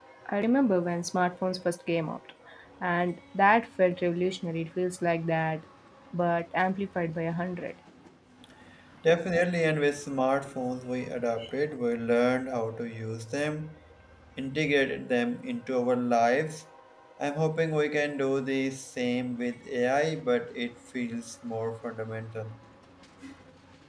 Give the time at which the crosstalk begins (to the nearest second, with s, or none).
none